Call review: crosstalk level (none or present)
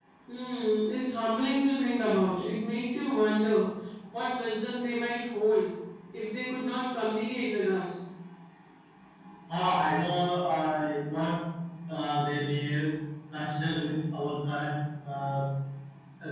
none